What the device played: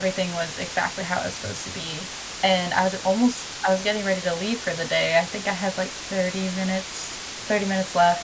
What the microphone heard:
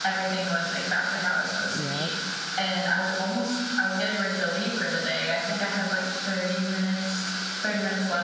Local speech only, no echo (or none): Yep.